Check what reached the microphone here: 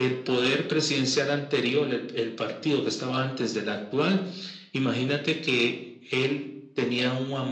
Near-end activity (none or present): none